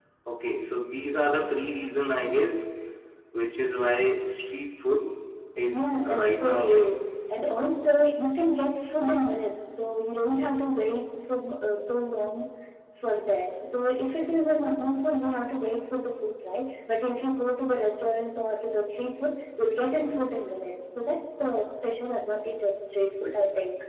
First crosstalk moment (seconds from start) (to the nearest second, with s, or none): 6 s